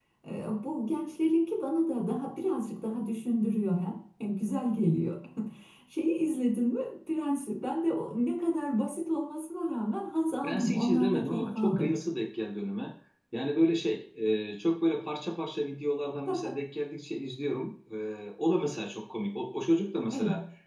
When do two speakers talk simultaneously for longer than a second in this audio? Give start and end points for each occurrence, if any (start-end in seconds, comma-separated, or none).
10.4-11.9